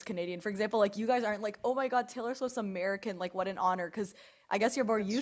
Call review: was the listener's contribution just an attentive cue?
Yes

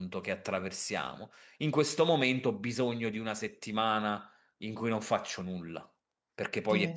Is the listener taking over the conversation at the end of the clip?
Yes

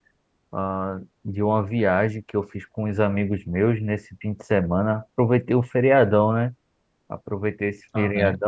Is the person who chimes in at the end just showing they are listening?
Yes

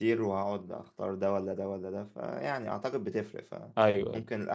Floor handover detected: No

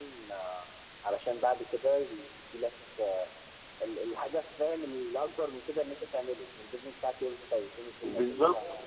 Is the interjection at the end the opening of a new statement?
Yes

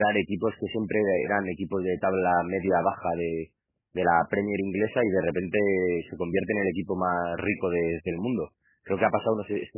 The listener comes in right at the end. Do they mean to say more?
No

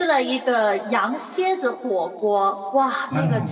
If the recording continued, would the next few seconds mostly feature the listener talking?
No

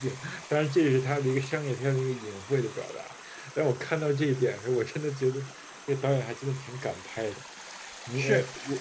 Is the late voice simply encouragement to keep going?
No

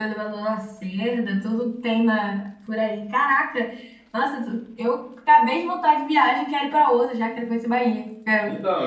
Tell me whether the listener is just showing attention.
No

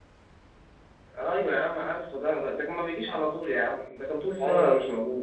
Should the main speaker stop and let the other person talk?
Yes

